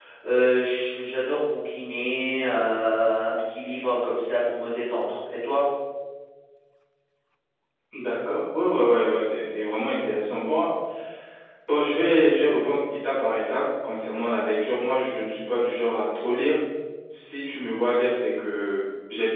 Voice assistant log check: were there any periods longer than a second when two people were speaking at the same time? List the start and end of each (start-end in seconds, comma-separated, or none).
none